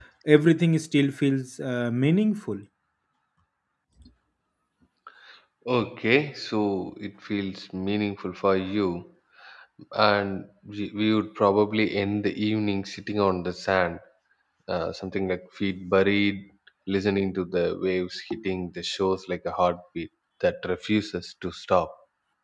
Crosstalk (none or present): none